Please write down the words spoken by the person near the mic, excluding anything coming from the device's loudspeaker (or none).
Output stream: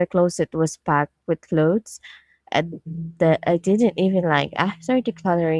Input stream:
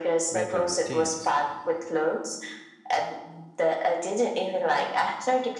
better routines